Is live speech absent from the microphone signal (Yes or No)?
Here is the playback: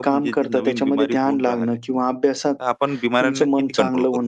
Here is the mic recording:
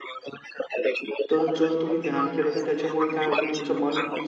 No